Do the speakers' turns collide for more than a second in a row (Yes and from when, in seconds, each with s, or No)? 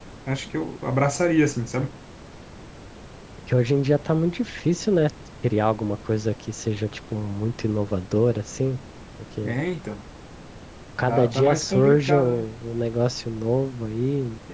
Yes, from 11.1 s